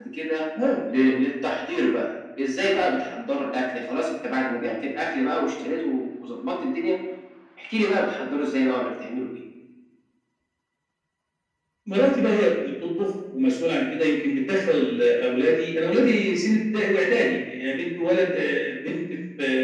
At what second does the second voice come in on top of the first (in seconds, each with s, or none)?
none